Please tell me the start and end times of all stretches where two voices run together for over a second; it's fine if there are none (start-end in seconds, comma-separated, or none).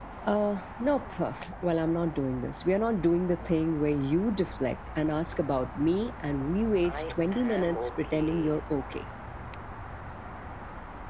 6.8-8.6